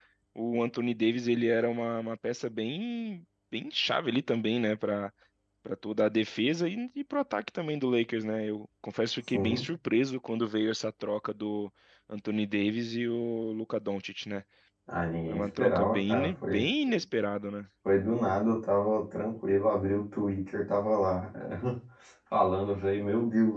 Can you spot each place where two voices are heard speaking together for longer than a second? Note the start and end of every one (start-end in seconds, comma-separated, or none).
15.3-16.7